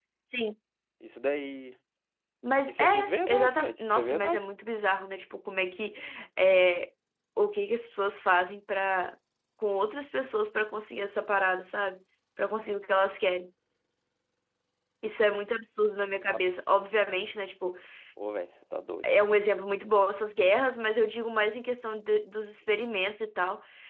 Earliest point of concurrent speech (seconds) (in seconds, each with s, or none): 2.6 s